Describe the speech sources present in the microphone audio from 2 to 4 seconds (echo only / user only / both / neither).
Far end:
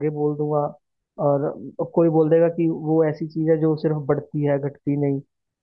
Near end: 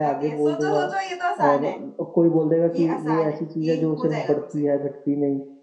both